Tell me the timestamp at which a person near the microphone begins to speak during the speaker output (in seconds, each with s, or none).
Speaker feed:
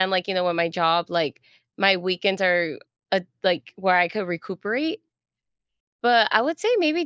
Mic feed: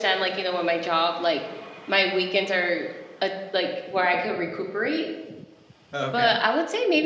5.9 s